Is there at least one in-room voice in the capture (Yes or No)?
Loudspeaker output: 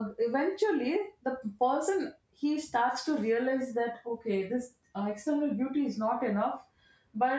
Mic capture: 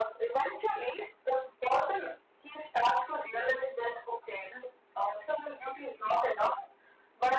No